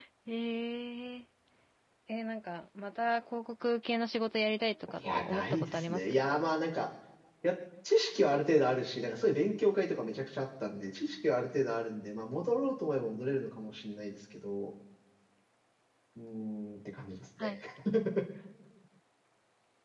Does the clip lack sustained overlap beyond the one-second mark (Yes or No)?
No